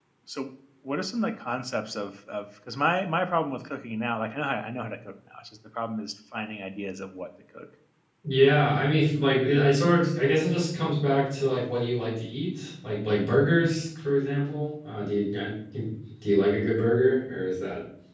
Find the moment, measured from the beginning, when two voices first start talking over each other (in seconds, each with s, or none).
none